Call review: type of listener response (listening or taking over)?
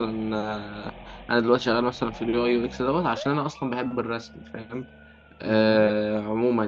listening